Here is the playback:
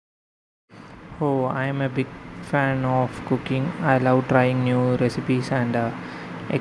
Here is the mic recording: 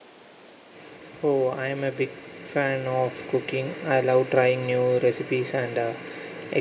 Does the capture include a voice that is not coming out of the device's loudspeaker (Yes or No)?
No